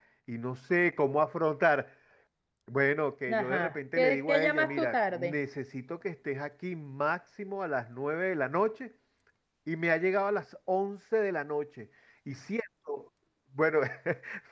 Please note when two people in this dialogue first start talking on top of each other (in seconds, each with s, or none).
3.3 s